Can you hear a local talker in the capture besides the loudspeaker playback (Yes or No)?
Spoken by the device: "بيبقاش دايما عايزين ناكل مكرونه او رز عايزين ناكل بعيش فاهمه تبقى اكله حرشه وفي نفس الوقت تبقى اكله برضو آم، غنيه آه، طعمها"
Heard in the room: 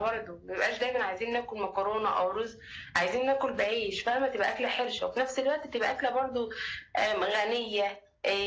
No